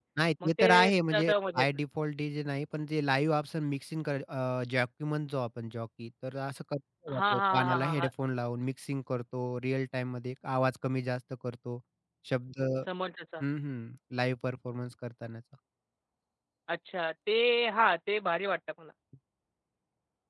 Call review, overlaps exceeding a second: present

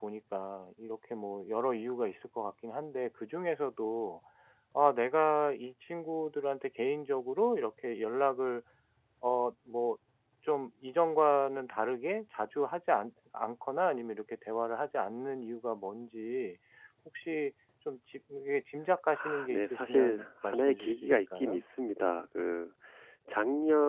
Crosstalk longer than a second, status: present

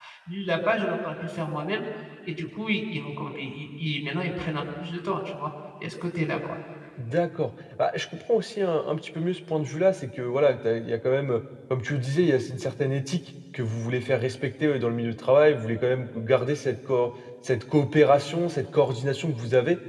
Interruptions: none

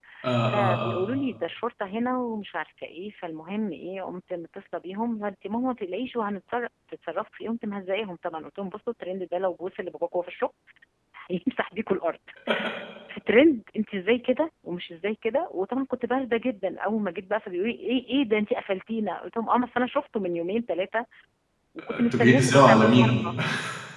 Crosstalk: present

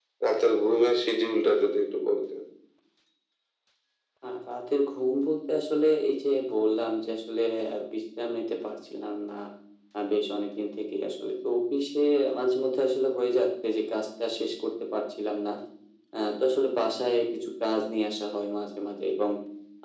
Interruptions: none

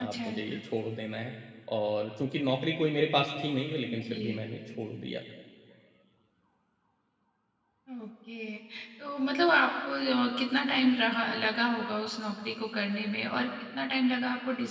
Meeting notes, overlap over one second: none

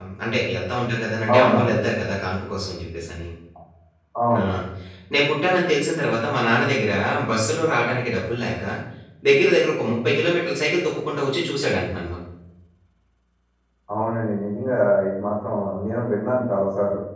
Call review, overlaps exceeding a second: none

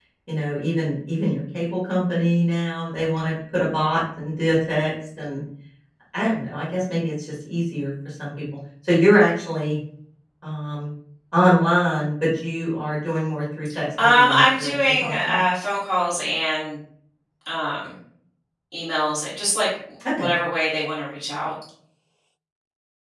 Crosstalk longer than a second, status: present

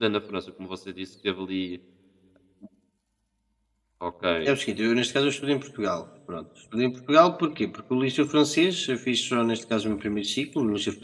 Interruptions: none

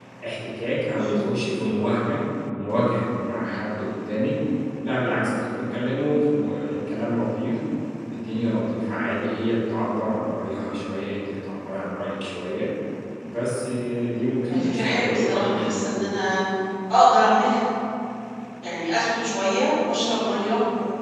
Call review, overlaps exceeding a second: present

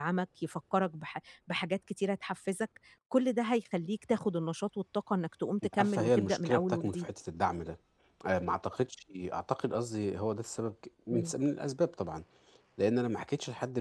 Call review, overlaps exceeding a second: present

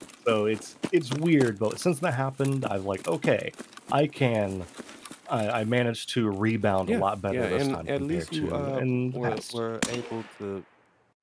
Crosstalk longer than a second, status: present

